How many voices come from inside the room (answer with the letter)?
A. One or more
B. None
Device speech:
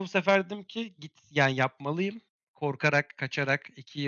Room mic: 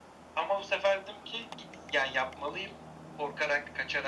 B